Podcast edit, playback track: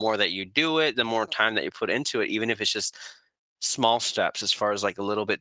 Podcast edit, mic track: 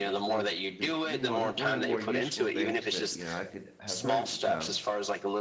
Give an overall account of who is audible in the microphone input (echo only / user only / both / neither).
both